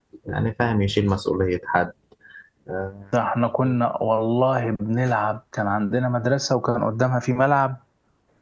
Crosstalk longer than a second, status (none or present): none